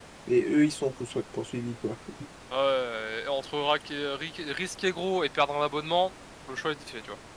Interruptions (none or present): none